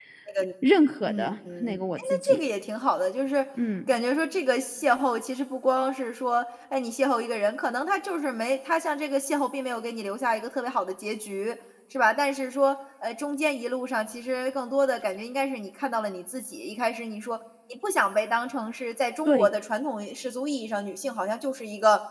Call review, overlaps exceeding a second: present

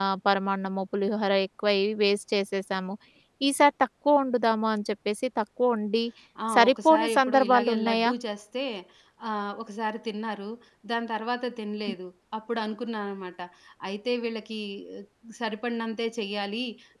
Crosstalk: present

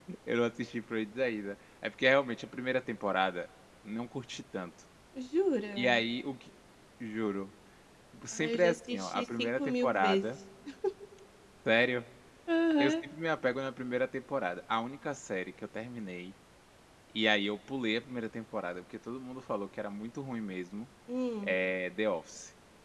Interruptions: present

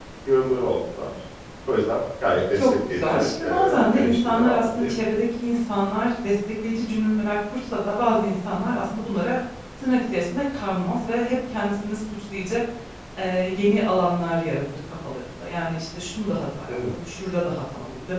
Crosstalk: present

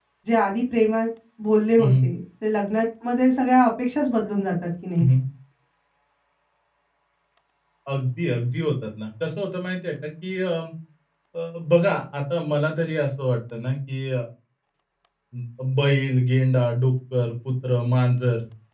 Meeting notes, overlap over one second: none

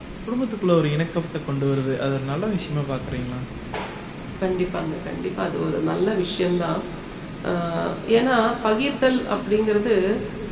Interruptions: none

